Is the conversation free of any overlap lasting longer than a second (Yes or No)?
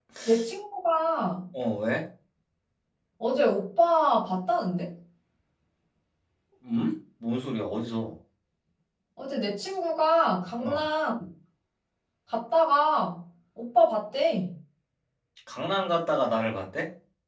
Yes